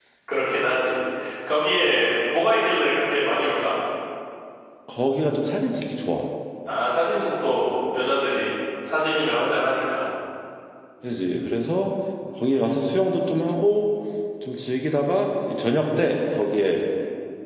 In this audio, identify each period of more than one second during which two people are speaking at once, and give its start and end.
none

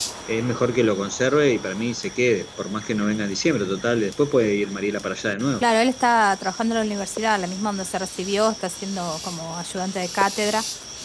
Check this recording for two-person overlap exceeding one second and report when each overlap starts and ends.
none

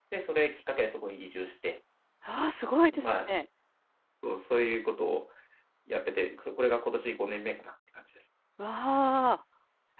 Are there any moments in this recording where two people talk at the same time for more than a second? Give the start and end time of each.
none

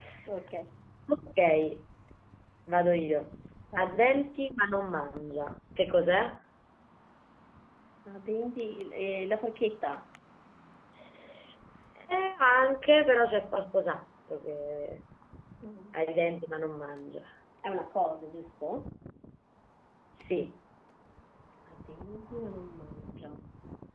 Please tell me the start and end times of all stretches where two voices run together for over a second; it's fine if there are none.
none

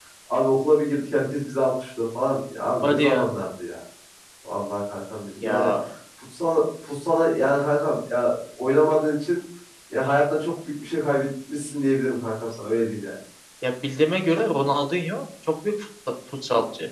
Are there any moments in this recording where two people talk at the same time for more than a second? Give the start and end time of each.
none

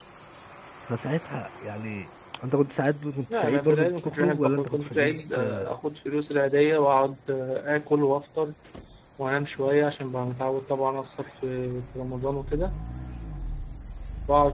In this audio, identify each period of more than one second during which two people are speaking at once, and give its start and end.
3.3-5.8

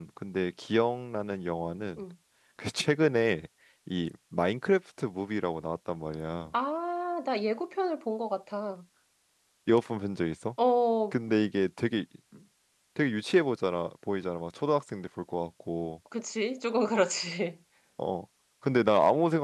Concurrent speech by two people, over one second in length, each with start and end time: none

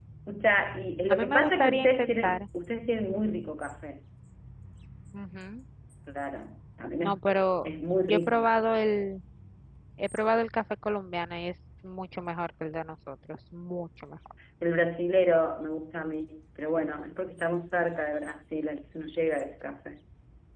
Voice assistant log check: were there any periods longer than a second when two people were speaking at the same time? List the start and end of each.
1.1-2.4

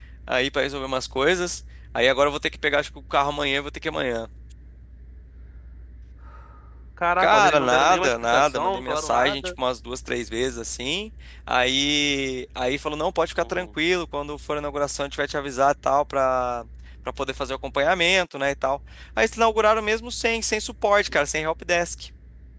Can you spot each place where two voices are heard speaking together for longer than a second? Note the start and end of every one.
7.2-9.5

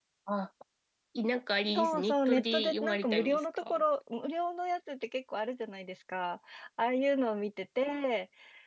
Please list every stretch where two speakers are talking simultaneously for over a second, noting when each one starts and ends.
1.8-3.8

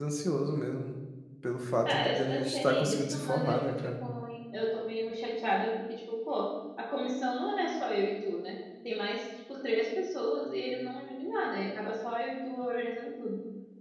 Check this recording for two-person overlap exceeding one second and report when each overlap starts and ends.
1.9-4.0

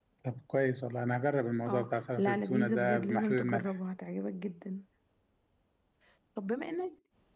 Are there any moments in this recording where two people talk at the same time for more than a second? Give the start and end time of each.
1.7-3.7

